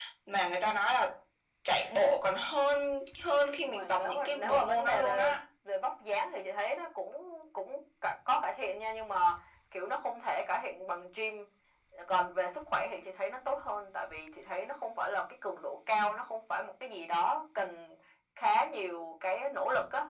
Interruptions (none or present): present